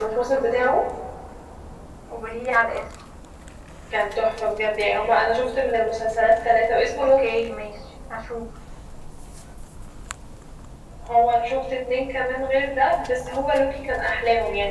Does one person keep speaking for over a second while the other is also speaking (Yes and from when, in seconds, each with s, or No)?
No